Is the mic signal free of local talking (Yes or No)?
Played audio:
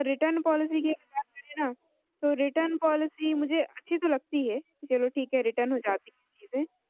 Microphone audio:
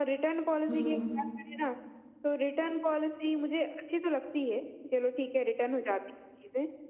No